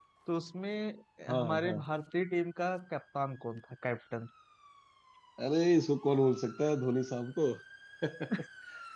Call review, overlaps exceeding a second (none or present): none